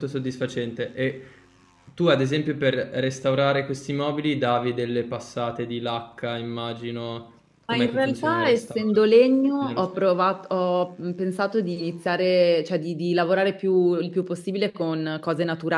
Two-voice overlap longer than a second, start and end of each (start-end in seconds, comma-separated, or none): 7.7-9.0